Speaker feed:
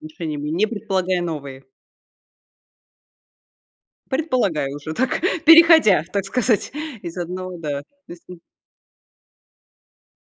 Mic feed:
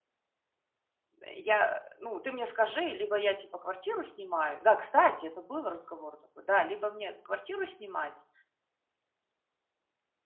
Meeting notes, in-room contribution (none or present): present